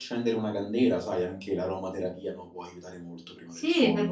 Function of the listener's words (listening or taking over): taking over